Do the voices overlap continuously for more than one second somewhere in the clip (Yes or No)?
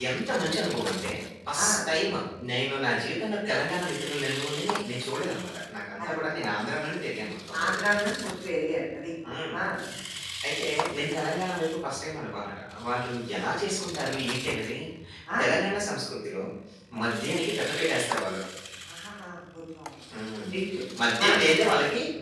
No